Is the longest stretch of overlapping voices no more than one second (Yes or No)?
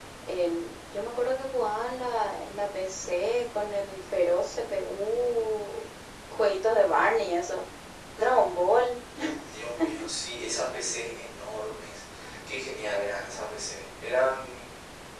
Yes